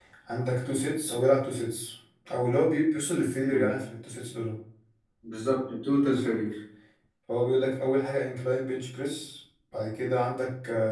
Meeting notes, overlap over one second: none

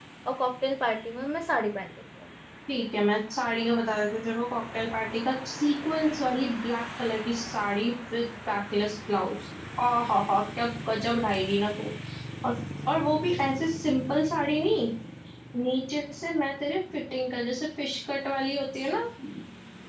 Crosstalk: none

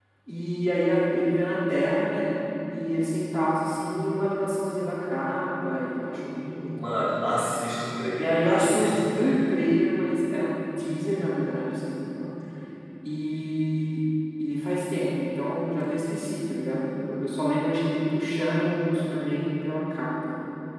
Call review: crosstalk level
present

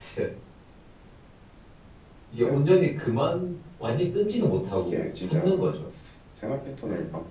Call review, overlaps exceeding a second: present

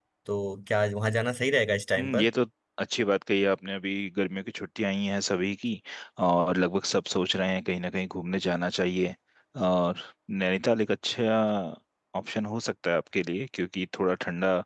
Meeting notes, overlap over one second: none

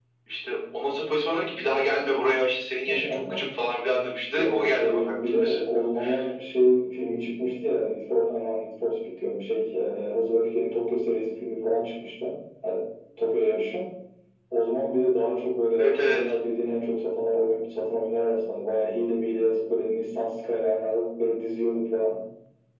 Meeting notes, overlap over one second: present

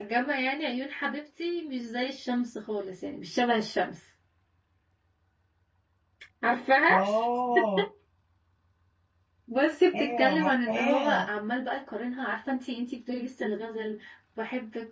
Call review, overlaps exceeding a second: present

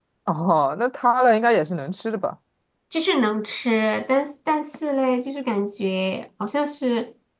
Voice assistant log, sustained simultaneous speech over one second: none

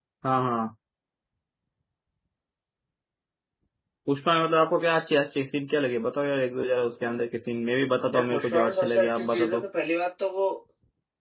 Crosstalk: present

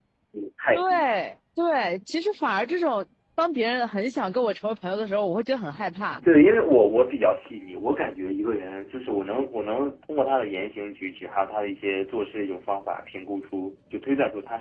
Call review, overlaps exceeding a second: none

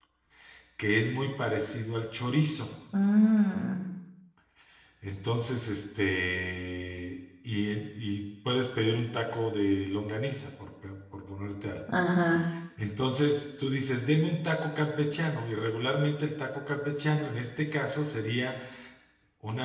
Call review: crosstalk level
none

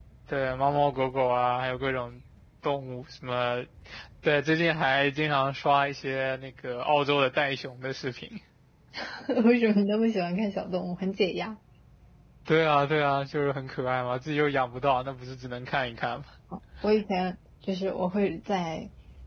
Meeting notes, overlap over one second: none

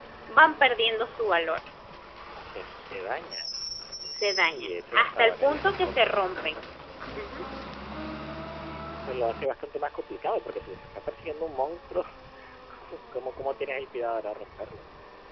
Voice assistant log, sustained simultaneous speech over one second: present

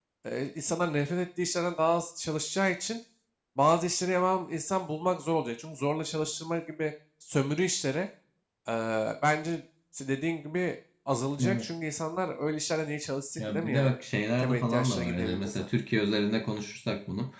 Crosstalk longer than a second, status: present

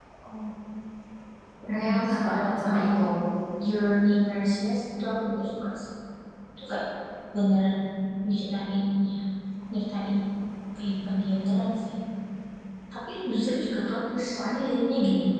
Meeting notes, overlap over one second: present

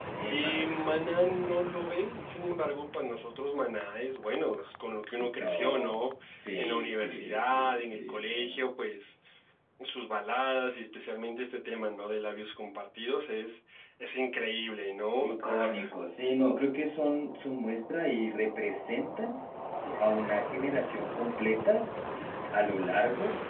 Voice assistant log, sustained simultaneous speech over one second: present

